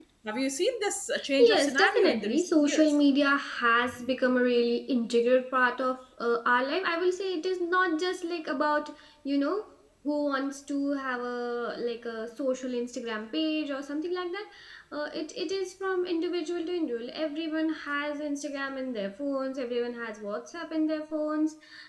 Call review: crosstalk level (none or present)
present